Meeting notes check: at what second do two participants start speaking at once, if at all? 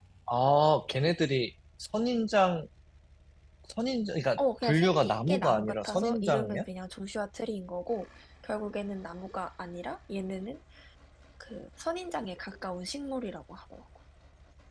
4.4 s

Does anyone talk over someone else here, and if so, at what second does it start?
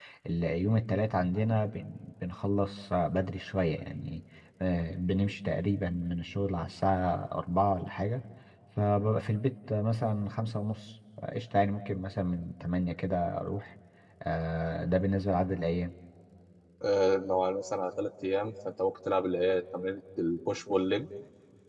none

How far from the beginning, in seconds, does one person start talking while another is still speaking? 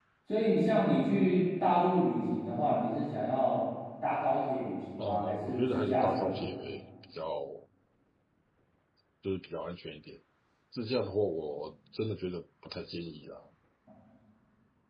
5.0 s

